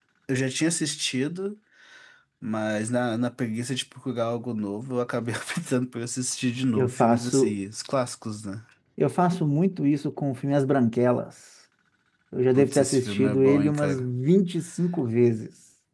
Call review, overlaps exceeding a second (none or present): present